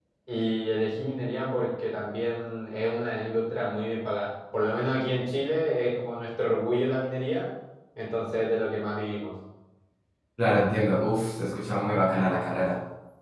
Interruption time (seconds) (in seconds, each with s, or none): none